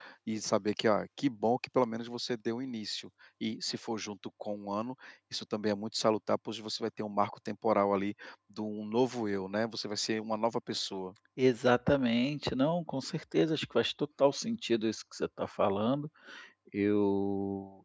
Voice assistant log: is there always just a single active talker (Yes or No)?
Yes